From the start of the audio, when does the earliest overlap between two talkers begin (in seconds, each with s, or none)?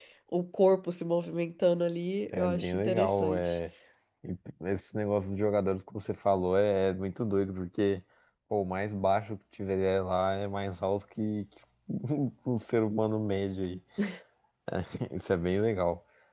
2.3 s